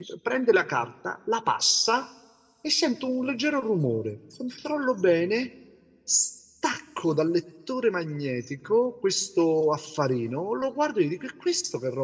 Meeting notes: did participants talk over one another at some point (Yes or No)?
No